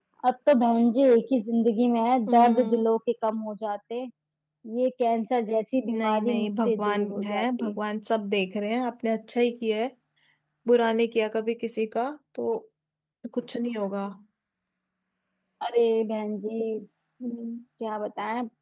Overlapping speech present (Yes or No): Yes